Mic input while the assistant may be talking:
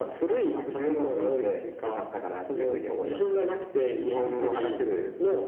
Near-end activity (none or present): present